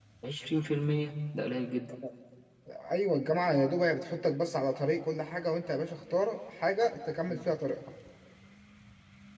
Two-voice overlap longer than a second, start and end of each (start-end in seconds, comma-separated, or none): none